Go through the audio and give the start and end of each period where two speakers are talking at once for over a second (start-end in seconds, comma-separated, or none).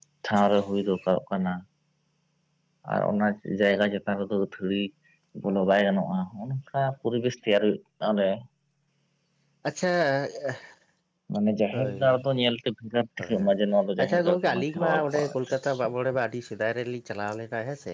14.0-15.3